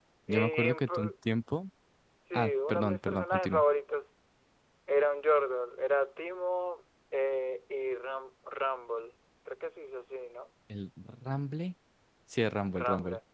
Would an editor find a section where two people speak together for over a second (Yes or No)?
Yes